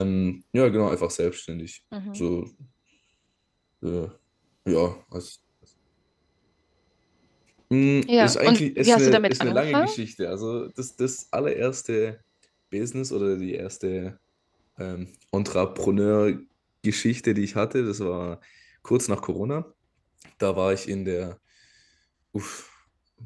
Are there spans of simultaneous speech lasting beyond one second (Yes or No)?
Yes